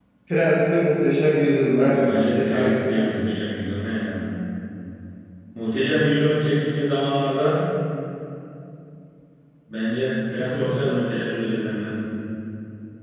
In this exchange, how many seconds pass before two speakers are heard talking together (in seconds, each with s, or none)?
1.8 s